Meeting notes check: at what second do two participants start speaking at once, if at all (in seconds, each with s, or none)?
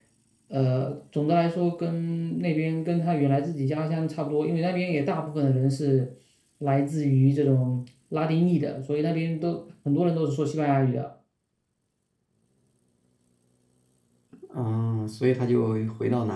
none